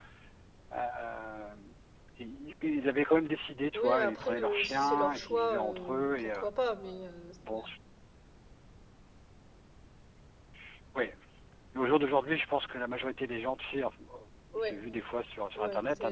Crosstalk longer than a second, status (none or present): present